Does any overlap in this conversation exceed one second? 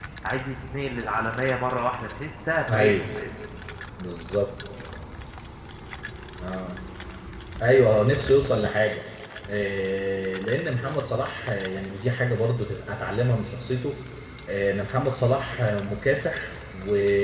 No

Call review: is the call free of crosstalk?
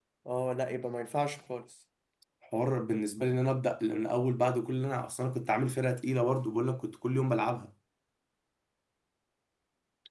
Yes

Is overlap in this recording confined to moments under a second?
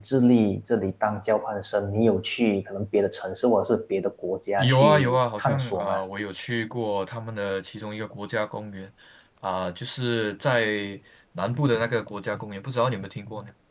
No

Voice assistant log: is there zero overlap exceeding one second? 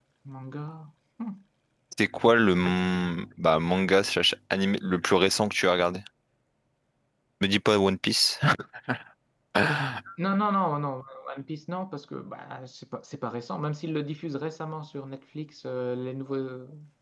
Yes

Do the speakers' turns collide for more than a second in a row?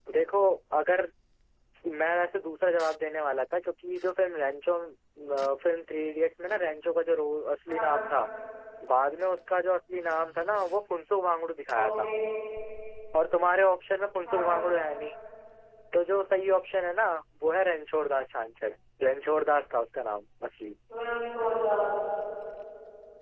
No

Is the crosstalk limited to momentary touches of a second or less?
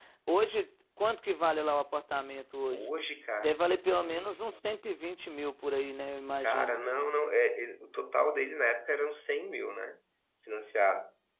Yes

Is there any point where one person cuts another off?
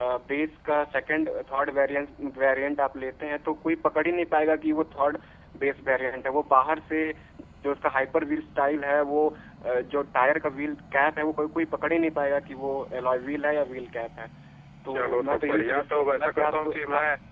Yes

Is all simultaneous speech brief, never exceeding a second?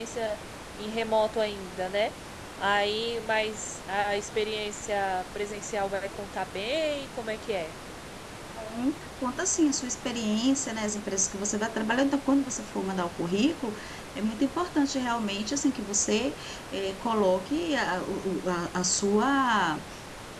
Yes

